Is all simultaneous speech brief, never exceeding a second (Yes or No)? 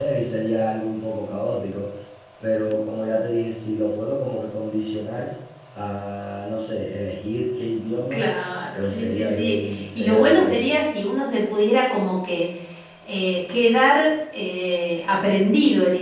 No